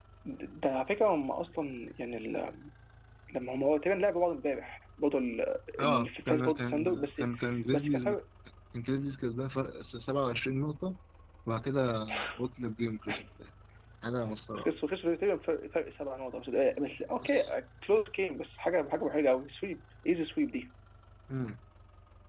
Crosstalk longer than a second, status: present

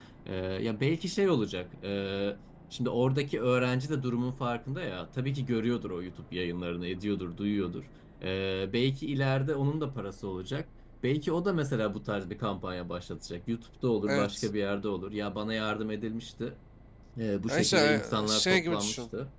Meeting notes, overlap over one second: present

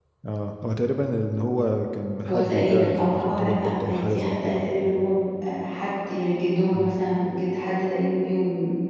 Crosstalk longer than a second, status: present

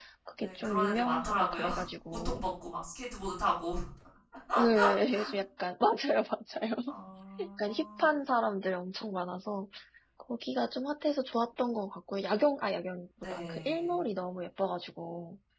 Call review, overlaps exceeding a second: present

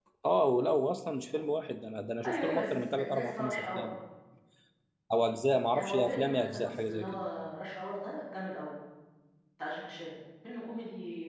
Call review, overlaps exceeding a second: present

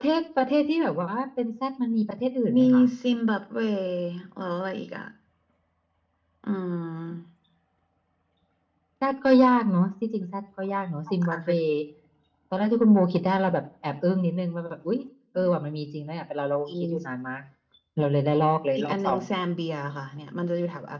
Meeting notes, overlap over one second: none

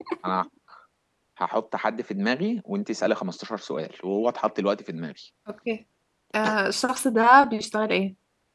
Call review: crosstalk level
none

